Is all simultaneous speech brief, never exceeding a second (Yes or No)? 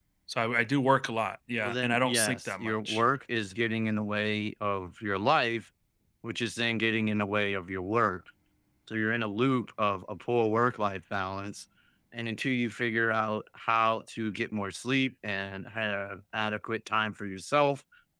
No